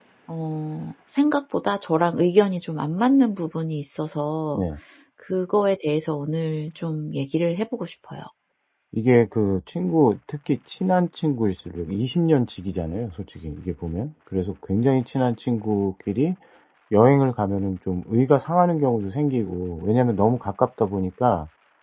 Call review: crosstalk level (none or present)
none